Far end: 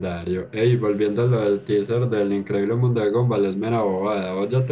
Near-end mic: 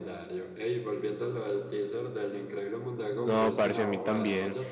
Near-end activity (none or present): present